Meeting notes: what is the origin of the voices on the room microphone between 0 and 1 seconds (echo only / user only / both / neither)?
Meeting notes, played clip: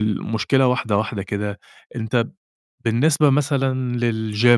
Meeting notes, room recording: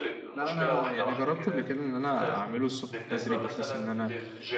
both